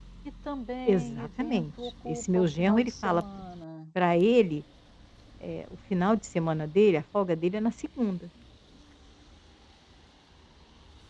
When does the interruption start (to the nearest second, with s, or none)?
1 s